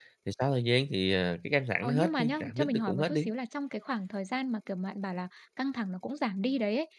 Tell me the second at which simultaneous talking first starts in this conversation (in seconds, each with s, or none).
1.8 s